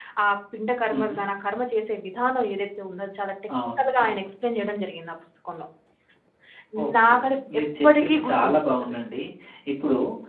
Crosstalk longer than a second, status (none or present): present